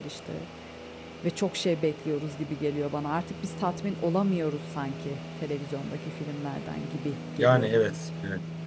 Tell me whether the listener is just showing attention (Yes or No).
No